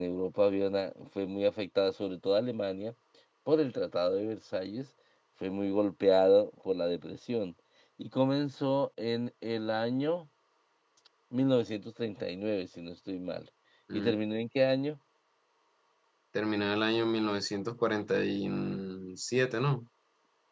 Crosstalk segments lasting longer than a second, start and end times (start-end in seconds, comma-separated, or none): none